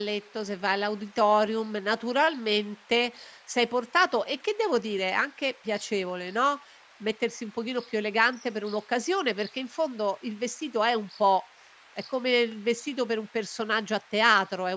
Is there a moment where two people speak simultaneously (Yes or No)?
No